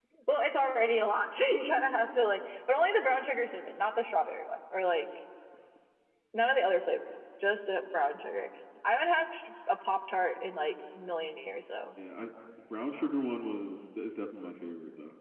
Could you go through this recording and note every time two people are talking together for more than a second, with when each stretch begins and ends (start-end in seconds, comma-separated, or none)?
none